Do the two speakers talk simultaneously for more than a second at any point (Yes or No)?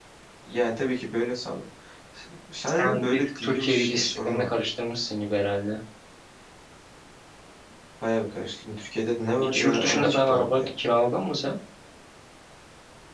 Yes